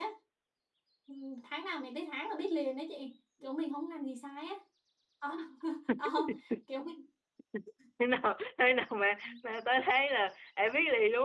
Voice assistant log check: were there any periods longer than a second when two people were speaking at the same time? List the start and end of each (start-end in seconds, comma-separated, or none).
none